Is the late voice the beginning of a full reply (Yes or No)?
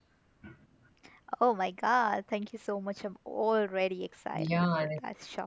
Yes